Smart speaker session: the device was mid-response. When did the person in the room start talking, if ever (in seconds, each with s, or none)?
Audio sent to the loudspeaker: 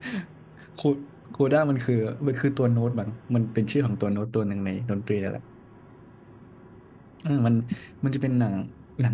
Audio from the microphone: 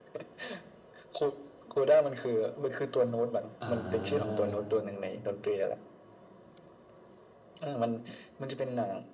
3.6 s